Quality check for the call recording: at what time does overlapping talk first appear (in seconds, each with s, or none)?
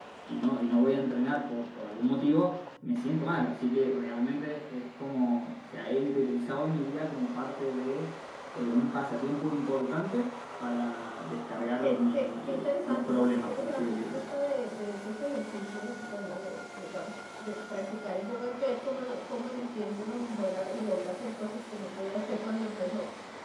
11.8 s